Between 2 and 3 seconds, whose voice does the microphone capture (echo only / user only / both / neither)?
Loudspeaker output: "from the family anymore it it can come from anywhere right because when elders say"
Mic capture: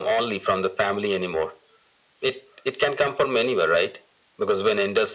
echo only